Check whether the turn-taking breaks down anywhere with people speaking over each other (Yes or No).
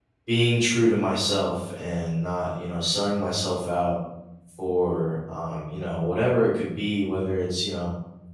No